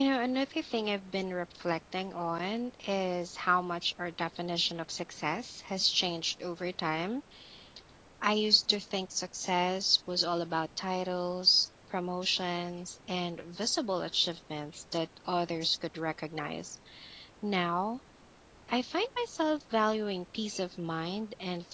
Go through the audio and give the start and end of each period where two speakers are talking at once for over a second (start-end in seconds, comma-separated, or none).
none